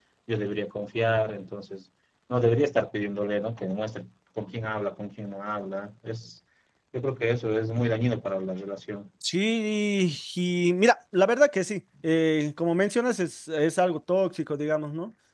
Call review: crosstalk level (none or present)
none